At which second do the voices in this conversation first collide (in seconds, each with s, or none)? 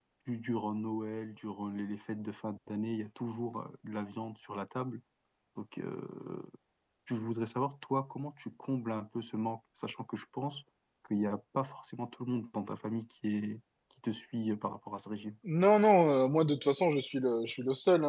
none